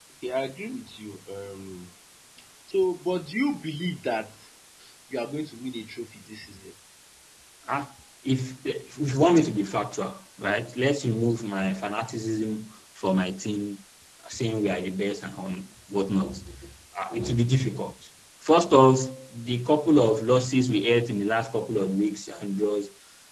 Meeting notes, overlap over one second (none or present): none